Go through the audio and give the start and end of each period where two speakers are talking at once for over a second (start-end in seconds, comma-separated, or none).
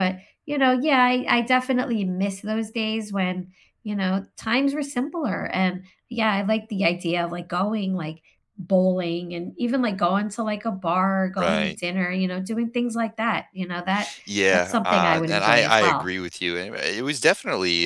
14.5-16.1